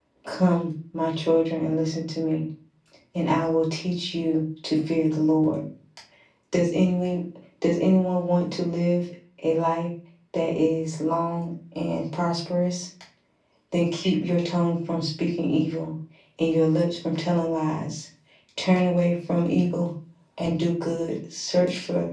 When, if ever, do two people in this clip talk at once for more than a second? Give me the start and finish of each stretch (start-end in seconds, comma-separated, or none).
none